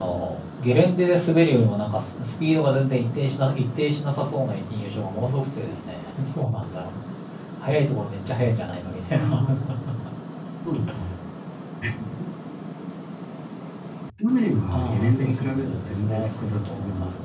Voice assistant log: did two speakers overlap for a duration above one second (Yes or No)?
Yes